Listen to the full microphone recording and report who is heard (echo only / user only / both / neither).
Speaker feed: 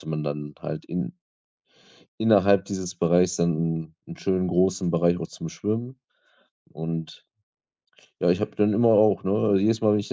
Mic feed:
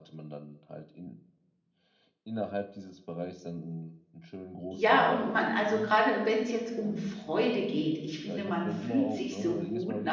both